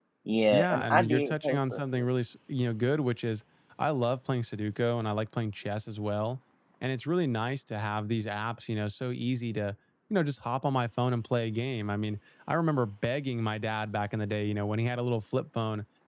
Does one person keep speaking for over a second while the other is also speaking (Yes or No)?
Yes